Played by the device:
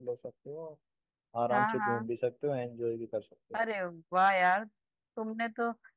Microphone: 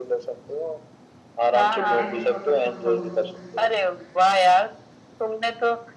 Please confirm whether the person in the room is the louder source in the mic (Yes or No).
No